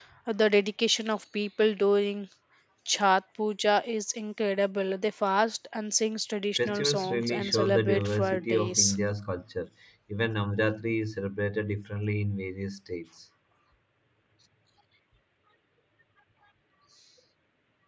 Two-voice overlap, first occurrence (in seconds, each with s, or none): 6.6 s